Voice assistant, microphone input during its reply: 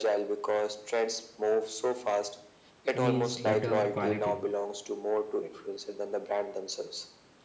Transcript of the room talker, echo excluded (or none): means better quality.